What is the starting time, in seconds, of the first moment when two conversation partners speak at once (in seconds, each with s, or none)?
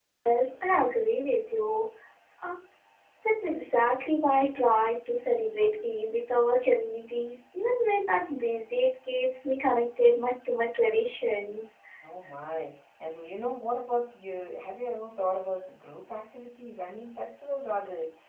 none